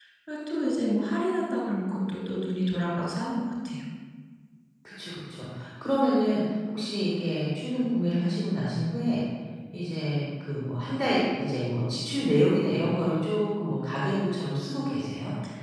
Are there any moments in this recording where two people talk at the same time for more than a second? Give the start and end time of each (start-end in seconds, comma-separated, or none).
none